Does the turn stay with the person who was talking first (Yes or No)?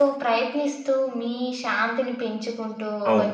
Yes